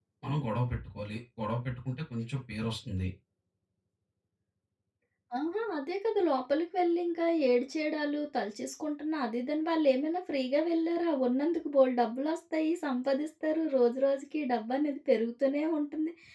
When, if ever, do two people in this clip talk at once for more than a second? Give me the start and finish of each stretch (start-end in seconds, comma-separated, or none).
none